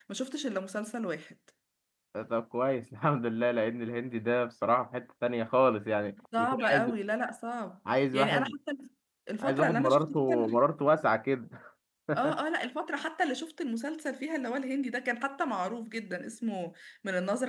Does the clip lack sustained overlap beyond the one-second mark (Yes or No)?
No